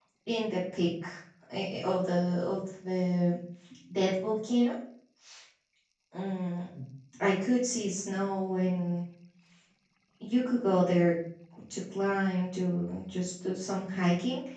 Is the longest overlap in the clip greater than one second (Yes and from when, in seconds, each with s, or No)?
No